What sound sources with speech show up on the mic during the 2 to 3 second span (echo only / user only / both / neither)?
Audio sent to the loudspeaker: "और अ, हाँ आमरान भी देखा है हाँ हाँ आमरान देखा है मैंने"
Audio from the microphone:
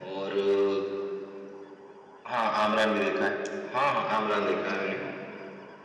echo only